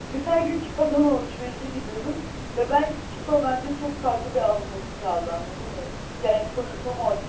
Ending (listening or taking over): listening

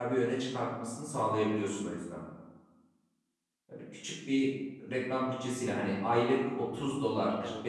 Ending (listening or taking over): listening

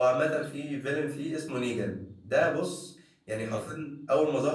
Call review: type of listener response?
listening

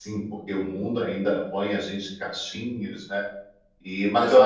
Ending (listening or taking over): listening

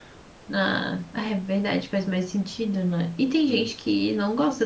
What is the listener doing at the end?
listening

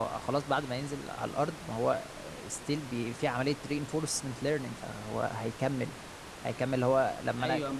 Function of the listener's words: taking over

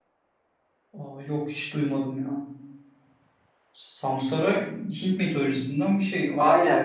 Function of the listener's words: taking over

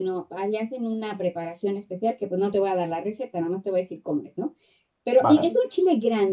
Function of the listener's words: listening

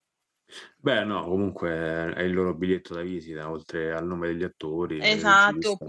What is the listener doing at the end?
taking over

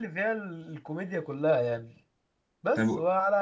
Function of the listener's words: listening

